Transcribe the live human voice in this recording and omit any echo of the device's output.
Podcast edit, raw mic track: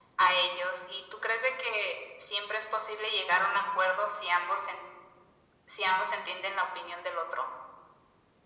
none

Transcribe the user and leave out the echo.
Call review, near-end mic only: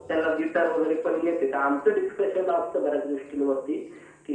none

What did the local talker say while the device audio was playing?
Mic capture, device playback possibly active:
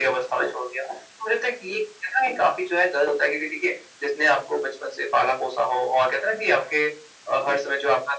none

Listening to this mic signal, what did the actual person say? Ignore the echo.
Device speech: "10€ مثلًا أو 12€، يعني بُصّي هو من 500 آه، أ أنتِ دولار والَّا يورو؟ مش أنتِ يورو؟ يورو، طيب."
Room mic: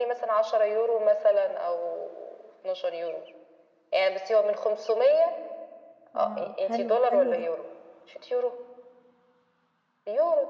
آه، حلو، حلو ده،

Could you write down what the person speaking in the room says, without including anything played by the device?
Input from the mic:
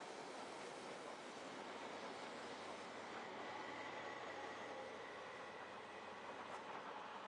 none

